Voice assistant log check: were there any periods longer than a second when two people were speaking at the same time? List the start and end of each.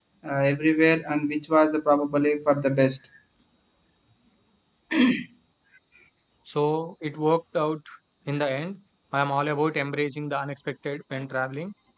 none

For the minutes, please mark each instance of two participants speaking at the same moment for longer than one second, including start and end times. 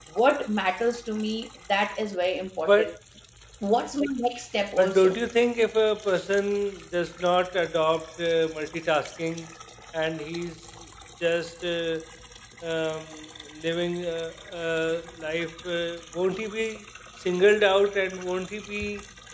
none

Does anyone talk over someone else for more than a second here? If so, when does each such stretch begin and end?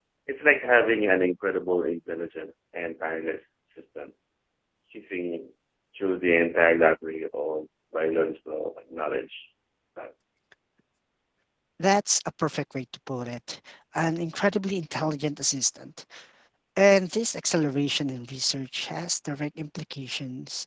none

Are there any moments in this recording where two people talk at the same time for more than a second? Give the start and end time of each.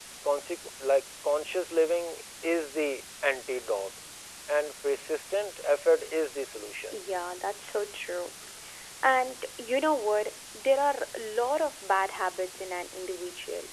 none

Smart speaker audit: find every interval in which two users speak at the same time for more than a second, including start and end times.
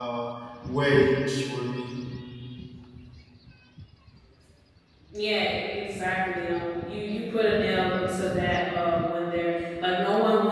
none

